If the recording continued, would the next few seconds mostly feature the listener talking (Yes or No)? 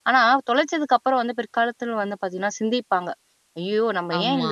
No